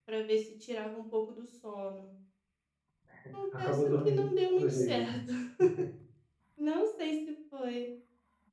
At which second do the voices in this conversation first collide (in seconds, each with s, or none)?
3.6 s